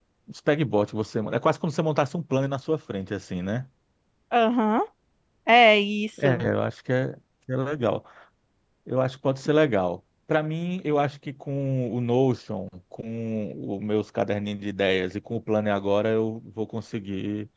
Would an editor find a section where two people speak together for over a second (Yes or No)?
No